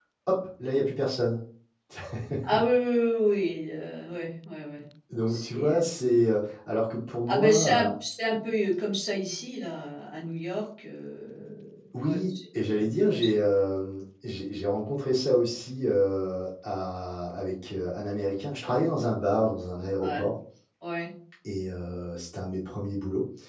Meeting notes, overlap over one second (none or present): present